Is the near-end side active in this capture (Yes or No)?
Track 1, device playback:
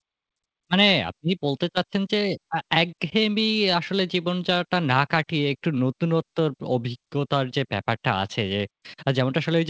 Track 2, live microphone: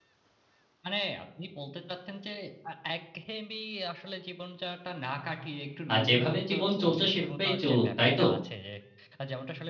Yes